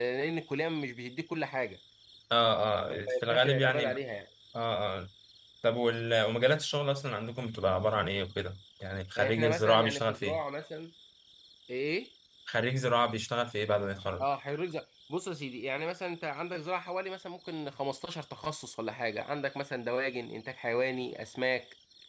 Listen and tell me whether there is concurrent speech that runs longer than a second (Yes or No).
Yes